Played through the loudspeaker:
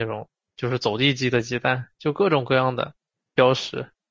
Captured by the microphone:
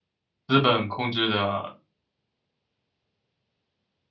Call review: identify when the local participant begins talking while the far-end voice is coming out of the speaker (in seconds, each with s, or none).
0.5 s